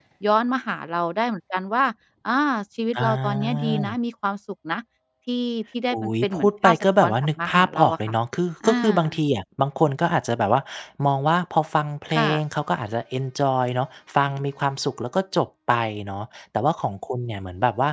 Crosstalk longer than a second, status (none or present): present